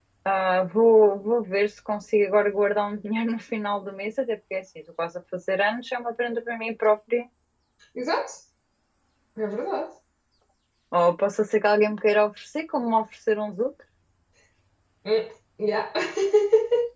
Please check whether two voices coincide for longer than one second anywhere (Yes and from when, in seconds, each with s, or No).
No